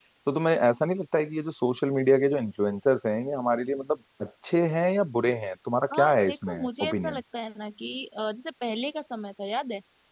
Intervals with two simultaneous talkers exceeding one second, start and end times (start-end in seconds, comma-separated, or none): 5.9-7.2